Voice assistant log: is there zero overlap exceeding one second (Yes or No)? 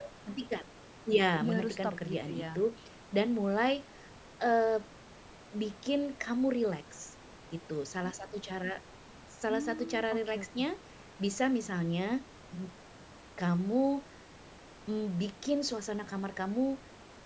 No